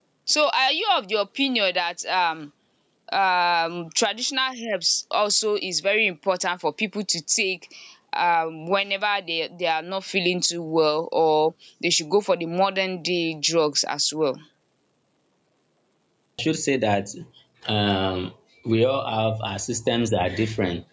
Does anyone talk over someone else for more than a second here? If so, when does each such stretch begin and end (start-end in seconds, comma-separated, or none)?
none